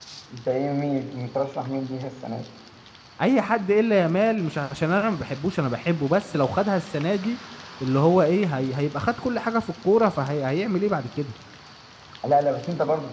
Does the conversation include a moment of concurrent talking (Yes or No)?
No